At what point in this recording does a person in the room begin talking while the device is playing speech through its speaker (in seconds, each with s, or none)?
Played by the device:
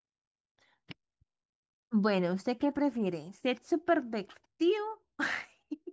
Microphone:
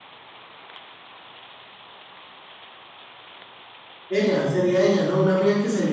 4.1 s